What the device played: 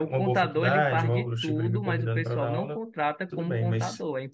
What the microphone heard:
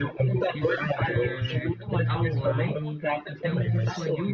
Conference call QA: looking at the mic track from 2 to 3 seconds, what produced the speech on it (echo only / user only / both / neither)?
both